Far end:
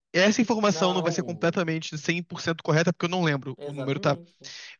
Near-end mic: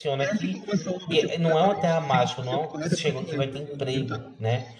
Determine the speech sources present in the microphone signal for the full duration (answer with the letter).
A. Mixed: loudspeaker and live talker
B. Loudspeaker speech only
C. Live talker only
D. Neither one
A